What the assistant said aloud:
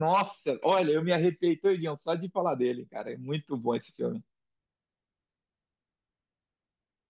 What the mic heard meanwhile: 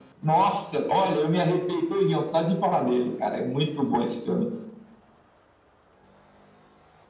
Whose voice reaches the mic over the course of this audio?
echo only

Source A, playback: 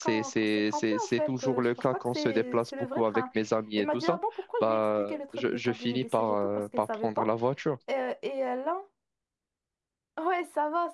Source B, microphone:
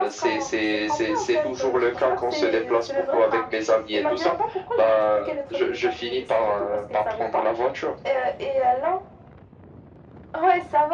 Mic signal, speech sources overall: echo only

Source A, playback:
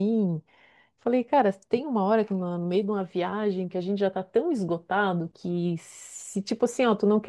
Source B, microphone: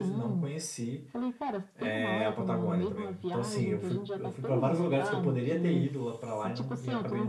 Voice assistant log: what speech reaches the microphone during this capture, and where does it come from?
both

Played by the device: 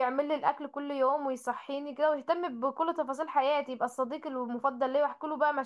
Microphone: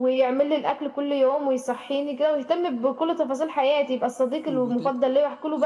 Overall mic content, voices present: both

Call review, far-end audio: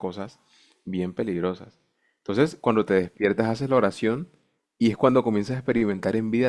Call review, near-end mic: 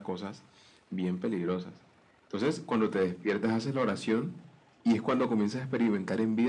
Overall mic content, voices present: echo only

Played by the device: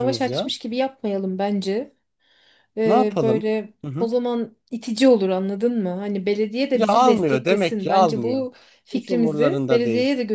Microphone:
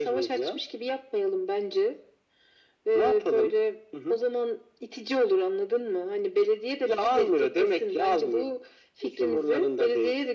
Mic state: echo only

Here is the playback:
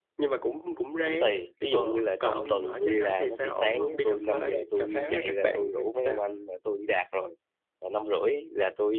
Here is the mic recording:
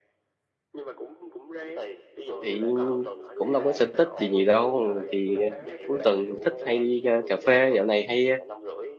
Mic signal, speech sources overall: both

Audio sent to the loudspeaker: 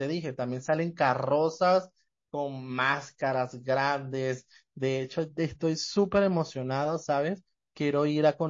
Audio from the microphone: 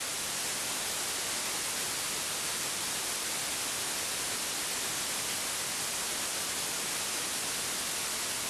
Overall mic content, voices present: neither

